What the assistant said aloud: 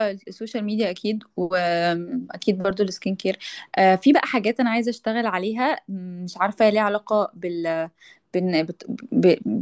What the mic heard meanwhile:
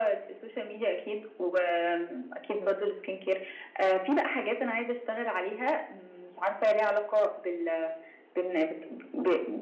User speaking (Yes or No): No